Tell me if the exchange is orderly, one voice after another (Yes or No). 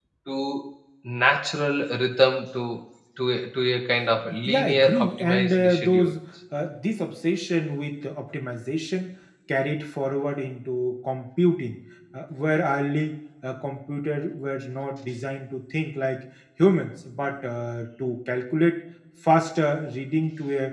No